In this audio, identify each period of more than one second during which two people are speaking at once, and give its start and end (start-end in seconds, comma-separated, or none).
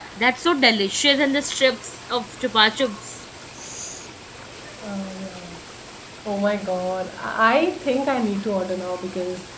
none